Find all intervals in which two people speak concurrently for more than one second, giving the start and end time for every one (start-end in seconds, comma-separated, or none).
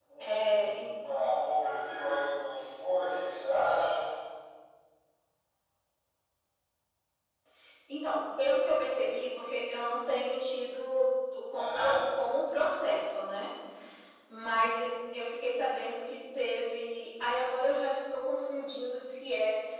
none